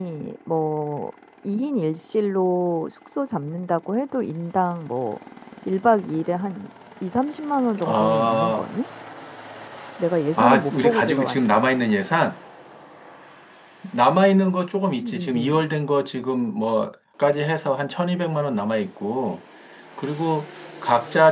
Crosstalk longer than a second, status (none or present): present